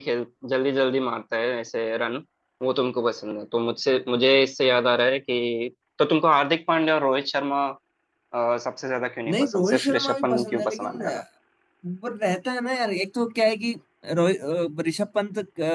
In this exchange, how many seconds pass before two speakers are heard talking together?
9.3 s

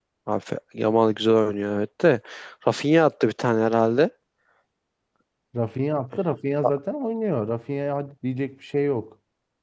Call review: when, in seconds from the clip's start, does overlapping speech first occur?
none

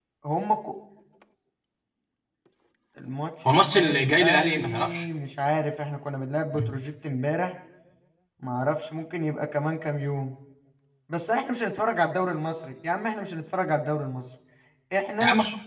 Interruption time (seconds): 3.5 s

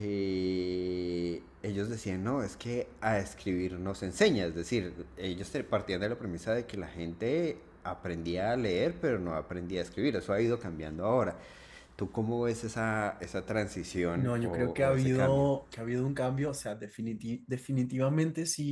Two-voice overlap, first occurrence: 14.2 s

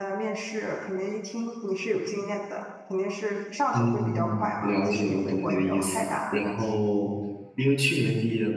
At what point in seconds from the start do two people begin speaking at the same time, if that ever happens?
3.7 s

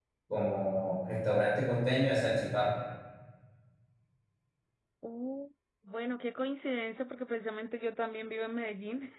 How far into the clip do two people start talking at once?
none

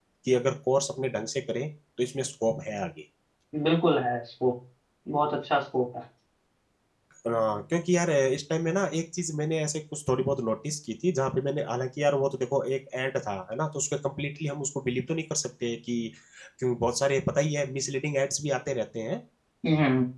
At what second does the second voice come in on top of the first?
none

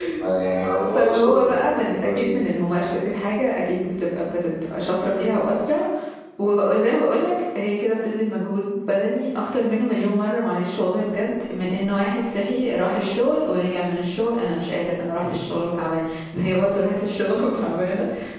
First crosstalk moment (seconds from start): 0.9 s

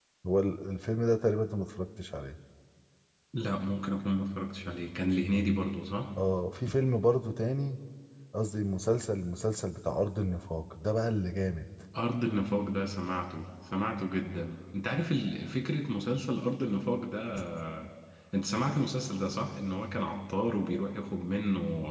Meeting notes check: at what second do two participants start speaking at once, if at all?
none

